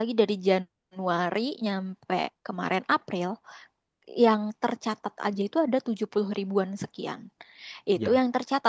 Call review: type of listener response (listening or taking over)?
listening